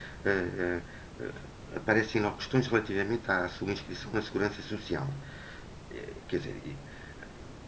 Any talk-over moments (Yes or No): No